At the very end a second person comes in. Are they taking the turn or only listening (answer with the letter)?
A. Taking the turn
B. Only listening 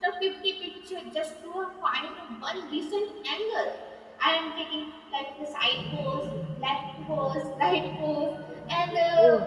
B